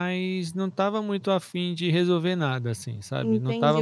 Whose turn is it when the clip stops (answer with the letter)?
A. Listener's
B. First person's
A